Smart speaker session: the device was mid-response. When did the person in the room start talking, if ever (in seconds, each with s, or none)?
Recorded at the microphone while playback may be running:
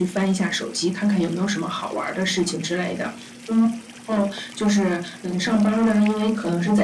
none